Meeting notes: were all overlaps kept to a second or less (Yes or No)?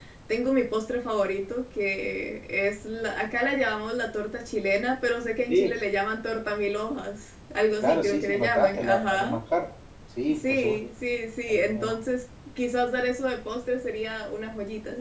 No